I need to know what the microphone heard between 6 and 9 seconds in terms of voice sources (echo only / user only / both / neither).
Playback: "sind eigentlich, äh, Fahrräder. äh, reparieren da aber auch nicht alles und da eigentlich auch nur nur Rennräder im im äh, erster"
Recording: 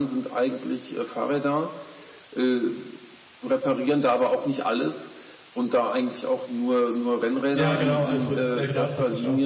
both